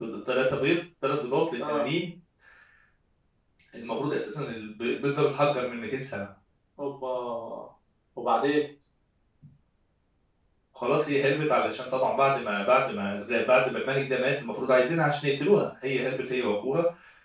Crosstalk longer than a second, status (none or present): none